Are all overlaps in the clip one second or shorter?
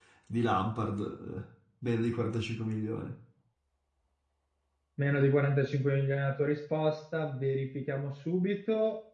Yes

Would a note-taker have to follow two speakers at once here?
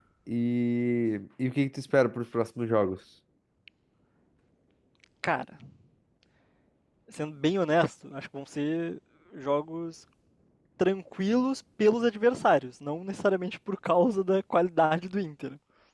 No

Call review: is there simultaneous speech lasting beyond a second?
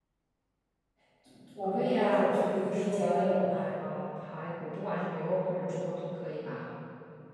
Yes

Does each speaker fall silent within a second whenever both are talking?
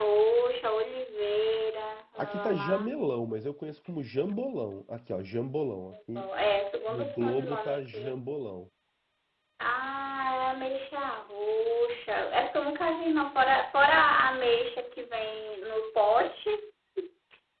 No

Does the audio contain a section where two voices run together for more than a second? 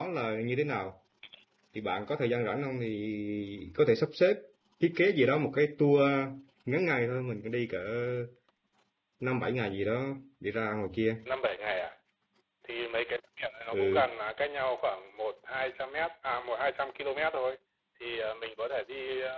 No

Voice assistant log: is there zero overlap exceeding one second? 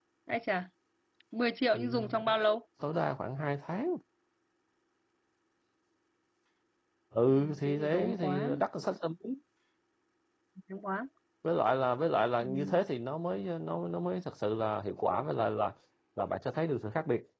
No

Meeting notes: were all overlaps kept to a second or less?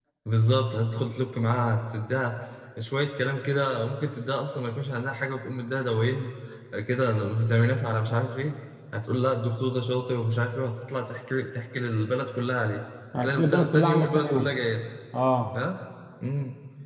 No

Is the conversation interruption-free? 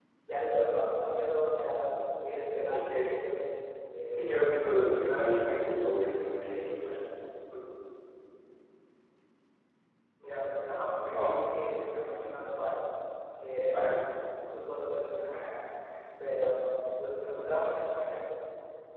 No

